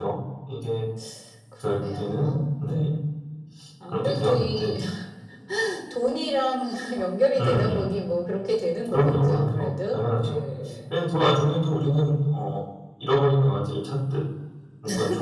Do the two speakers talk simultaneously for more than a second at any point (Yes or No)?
Yes